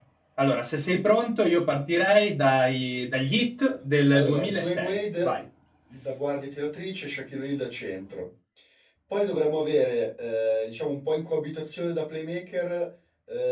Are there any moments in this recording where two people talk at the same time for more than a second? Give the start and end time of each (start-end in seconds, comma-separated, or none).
4.1-5.3